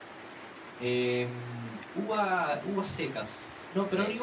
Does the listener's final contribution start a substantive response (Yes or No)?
No